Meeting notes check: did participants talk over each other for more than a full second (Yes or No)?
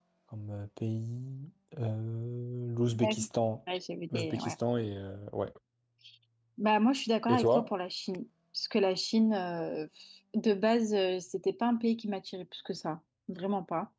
No